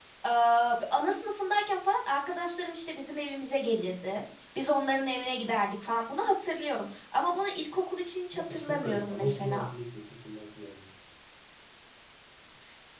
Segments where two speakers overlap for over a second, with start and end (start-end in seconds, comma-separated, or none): 8.3-9.7